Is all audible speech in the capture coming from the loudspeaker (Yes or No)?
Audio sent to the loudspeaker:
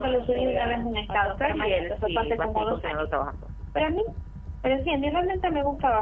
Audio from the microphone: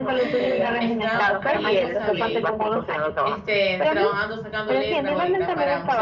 No